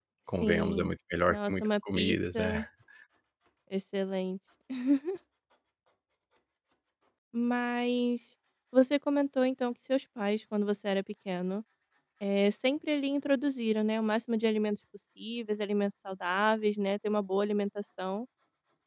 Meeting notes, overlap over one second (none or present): present